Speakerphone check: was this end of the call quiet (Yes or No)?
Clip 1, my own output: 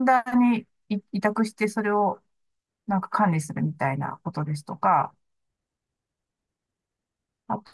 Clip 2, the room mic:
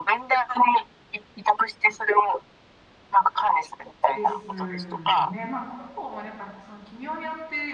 No